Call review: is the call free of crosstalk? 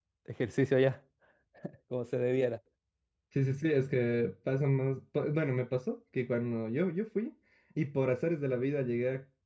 Yes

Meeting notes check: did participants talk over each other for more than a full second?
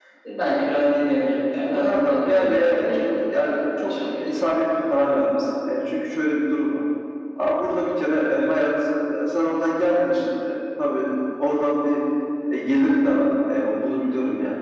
Yes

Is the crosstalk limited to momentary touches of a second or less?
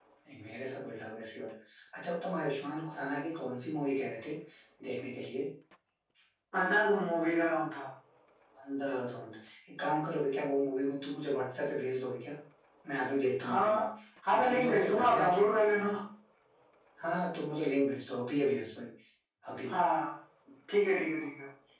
No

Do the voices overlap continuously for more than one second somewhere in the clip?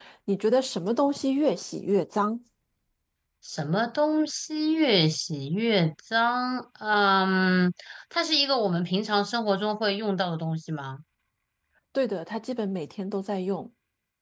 No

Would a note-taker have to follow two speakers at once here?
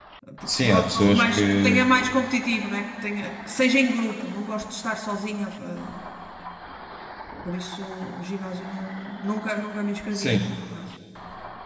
Yes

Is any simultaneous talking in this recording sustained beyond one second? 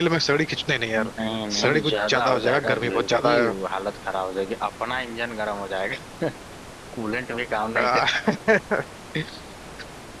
Yes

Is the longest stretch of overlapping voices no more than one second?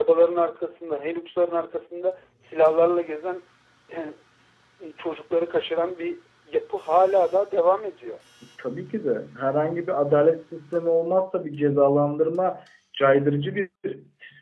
Yes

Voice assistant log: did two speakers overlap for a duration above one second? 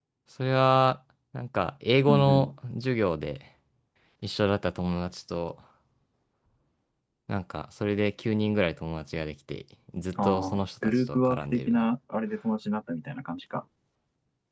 Yes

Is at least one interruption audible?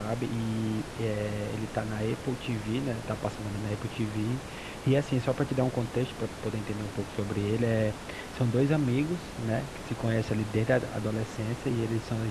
No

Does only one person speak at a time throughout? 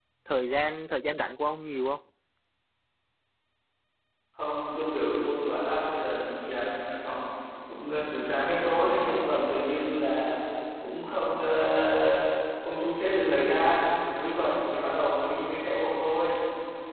Yes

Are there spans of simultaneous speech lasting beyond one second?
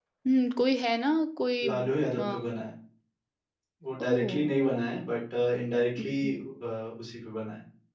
No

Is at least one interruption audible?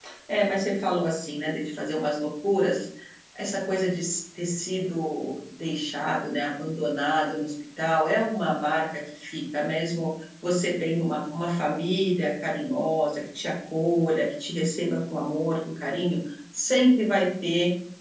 No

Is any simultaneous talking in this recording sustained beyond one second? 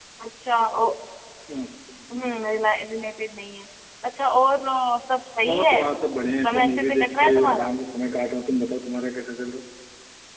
Yes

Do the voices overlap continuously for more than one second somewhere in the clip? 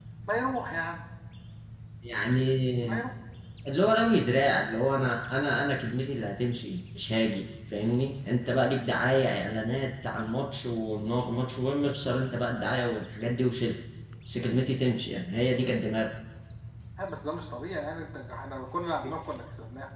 No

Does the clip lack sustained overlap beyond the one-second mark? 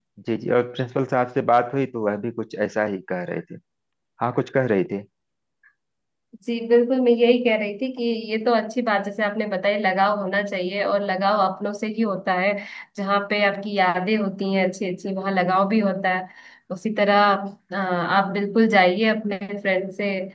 Yes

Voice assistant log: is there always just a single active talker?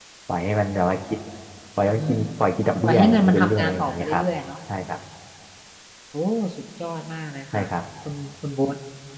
No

